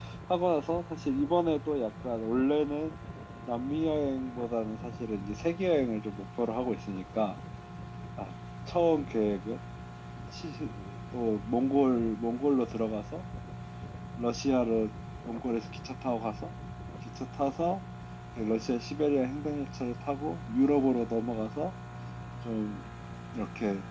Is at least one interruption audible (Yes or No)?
No